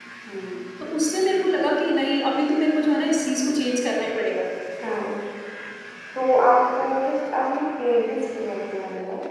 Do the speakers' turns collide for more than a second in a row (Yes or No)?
No